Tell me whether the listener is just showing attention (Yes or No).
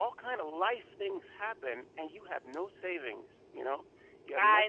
No